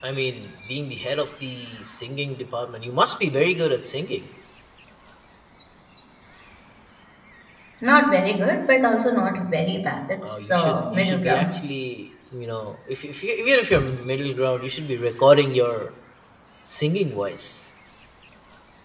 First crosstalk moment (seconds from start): 10.2 s

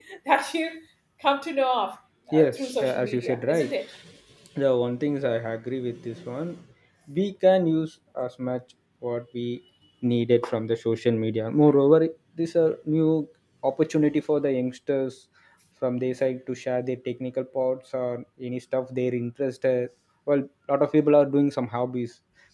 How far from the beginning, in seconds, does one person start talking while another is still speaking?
2.3 s

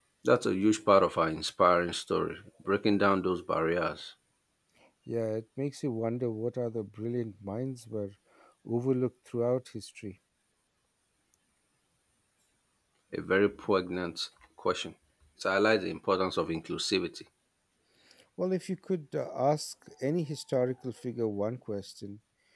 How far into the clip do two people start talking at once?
none

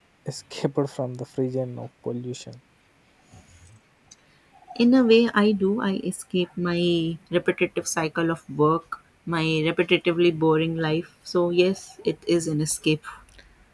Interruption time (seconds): none

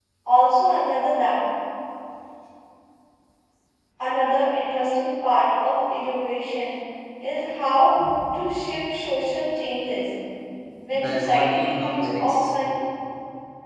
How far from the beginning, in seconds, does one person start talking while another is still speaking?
10.9 s

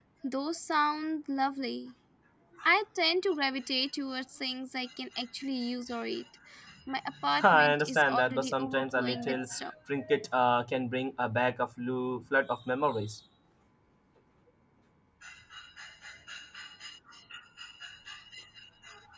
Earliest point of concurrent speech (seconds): 7.4 s

